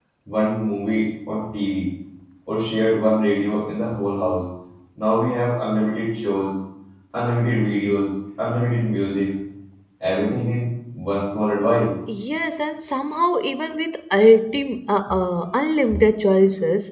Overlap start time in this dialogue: none

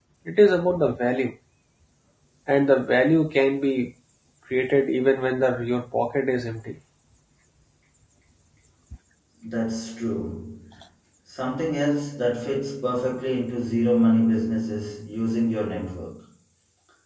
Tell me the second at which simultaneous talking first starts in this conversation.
none

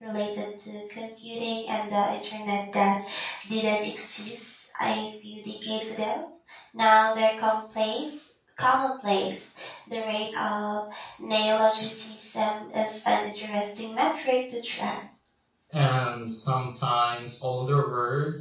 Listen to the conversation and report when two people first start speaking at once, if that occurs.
none

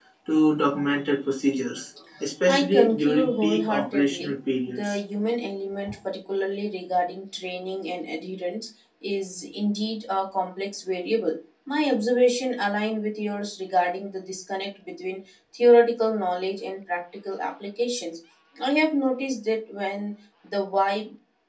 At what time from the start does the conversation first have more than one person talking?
2.5 s

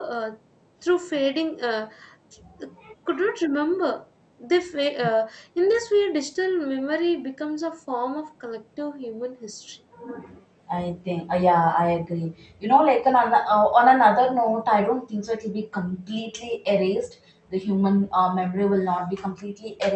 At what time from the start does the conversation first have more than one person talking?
none

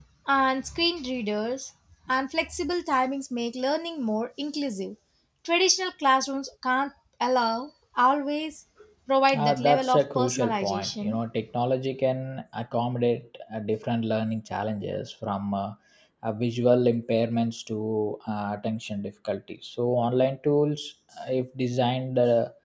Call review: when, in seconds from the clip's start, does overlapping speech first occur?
9.3 s

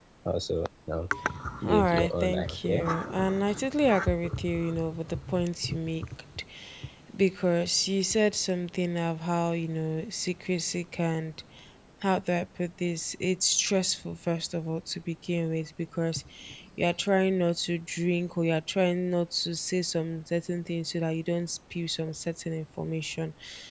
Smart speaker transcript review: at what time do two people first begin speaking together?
1.6 s

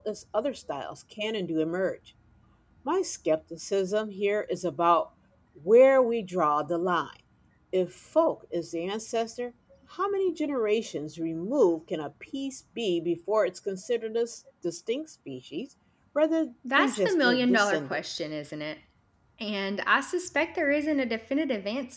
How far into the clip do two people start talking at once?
16.8 s

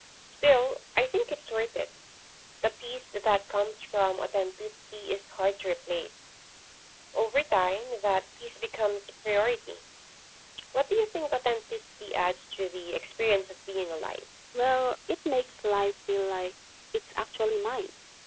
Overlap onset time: none

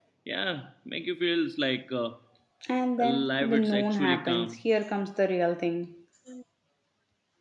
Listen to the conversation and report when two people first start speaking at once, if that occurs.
3.0 s

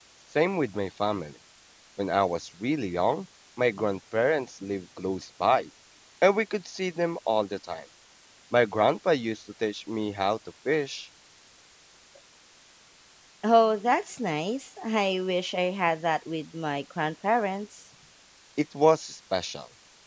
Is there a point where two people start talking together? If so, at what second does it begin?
none

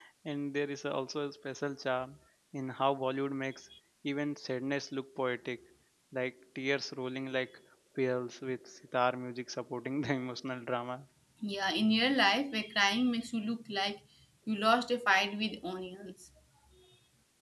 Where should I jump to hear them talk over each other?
none

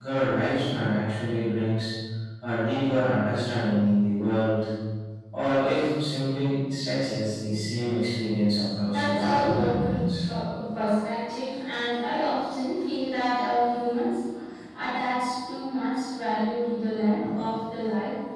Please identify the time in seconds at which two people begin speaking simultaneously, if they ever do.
8.8 s

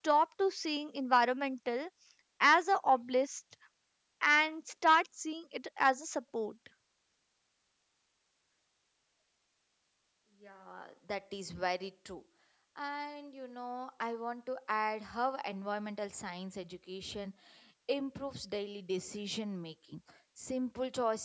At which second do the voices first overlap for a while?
none

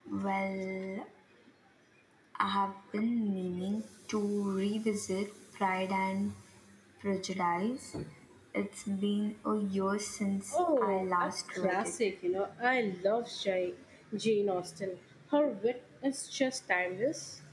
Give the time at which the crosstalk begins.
10.5 s

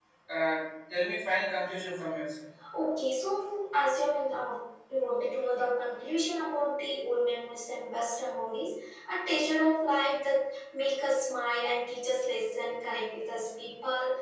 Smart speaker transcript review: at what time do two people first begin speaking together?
none

